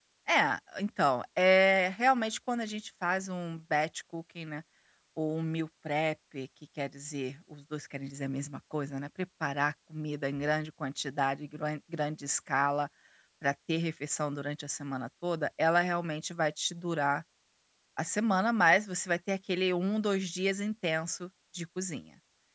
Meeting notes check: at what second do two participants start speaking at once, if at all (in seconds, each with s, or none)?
none